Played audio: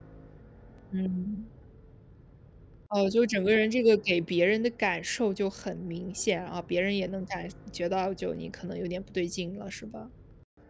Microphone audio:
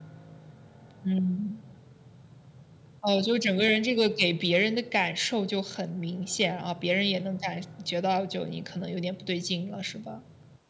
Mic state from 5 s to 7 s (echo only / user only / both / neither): echo only